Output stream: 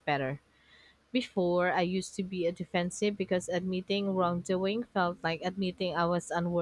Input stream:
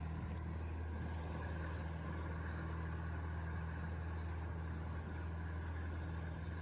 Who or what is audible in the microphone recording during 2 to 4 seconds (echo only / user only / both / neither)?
neither